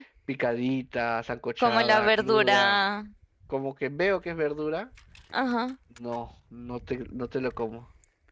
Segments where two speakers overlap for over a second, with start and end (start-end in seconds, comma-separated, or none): 1.6-2.8